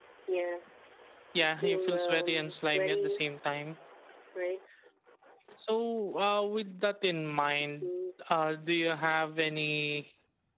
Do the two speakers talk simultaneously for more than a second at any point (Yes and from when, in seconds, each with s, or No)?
Yes, from 1.6 s